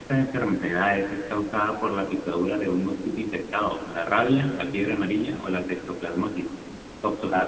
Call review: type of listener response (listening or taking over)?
taking over